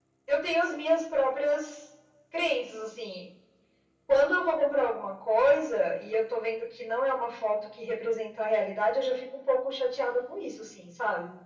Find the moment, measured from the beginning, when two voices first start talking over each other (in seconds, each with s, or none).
none